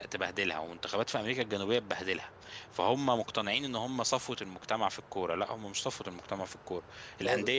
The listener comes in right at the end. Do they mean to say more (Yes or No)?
No